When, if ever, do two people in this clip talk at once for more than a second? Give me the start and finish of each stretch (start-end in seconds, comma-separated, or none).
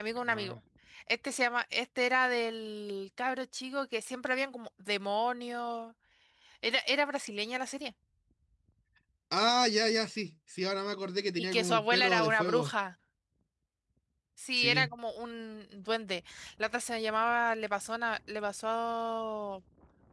11.4-12.7